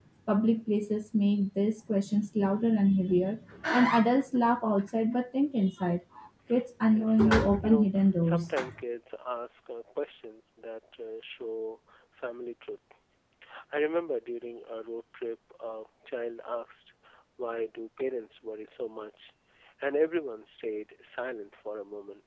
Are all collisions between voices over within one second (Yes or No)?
No